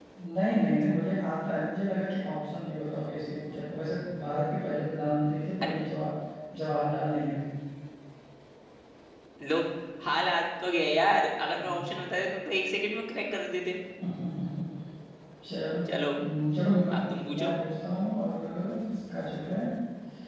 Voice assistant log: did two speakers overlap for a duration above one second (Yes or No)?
No